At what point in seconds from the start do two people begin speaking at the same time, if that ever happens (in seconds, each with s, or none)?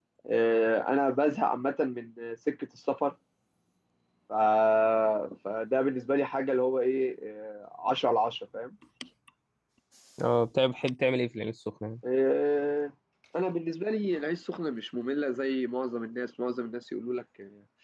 none